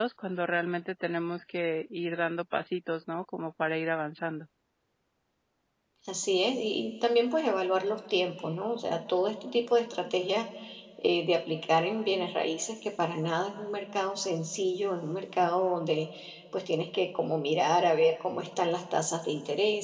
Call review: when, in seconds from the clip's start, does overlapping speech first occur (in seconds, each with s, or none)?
none